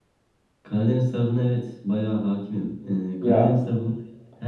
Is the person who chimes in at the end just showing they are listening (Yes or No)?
Yes